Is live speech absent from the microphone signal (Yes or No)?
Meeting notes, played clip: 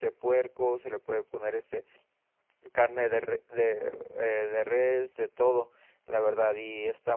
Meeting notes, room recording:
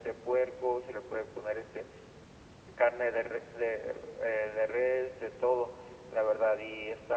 Yes